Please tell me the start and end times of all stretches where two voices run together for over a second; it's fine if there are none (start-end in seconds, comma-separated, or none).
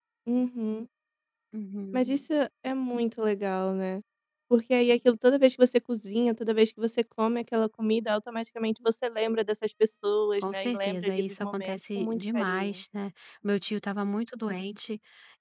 10.4-12.7